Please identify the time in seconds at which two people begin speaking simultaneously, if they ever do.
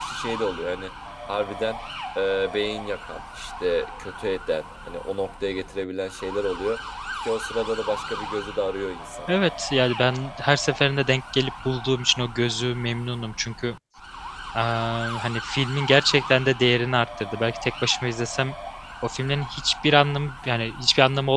none

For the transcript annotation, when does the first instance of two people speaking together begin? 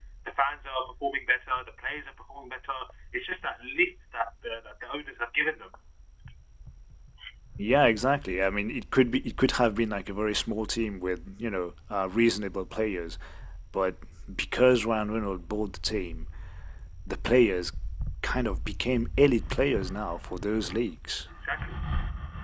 none

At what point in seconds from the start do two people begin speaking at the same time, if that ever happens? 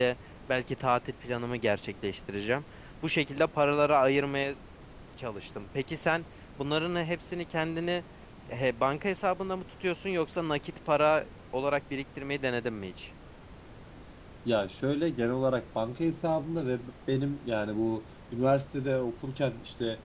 none

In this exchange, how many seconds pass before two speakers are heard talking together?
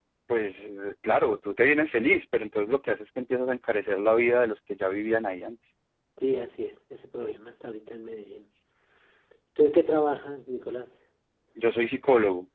none

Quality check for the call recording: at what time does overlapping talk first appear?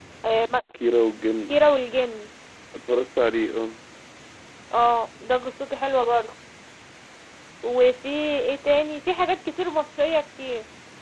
none

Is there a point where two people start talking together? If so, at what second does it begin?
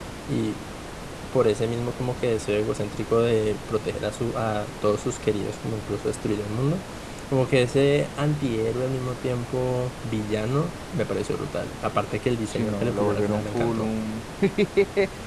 12.5 s

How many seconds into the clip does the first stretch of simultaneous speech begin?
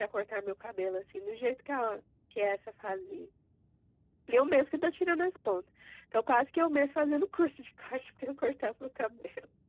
none

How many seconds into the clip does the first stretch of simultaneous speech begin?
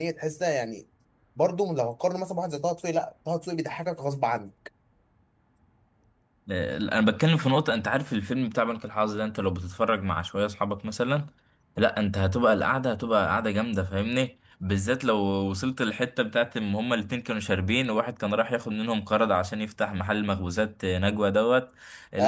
none

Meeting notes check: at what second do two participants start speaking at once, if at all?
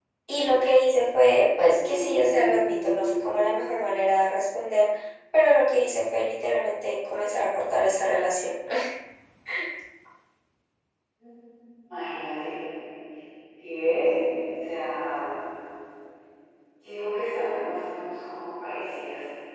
1.8 s

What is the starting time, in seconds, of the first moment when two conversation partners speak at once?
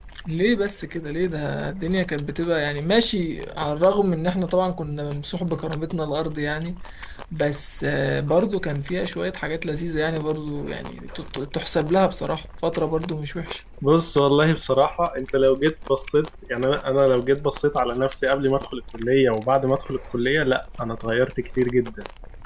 none

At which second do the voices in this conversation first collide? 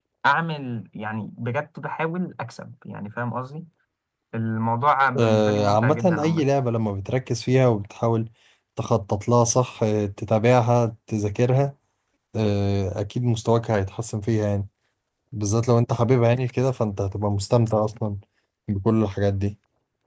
5.2 s

